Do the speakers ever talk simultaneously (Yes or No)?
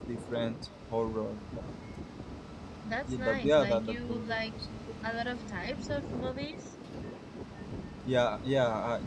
Yes